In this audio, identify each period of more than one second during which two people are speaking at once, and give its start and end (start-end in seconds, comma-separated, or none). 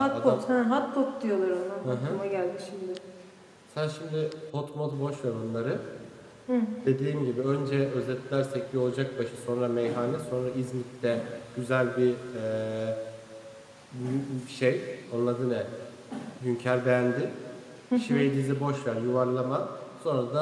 none